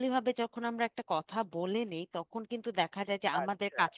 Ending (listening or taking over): listening